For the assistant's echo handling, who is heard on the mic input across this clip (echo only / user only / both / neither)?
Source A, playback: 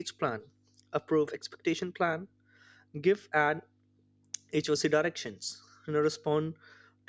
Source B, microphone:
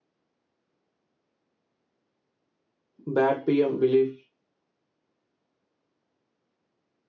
user only